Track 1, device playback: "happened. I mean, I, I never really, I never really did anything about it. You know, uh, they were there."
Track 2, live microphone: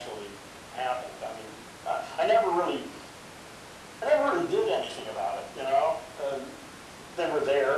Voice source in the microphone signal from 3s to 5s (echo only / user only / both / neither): echo only